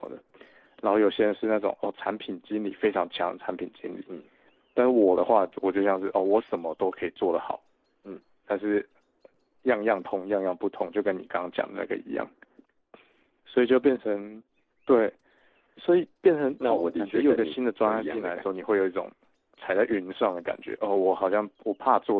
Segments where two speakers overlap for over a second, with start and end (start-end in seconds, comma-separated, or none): 16.7-18.6